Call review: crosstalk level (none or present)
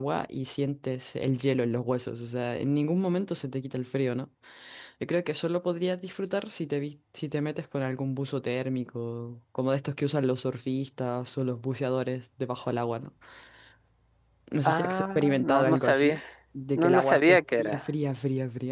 present